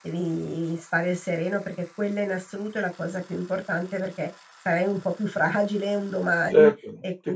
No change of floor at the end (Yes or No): No